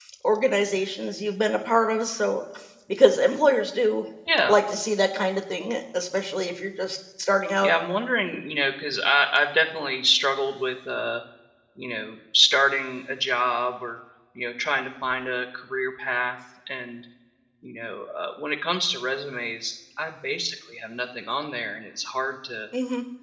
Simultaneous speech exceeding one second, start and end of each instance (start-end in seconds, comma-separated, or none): none